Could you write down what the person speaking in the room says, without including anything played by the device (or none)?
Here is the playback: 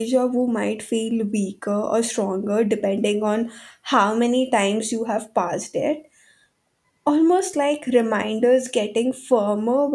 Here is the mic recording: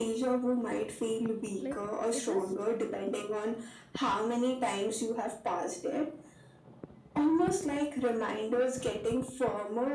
like it just